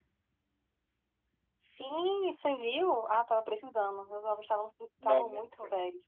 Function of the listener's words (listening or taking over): listening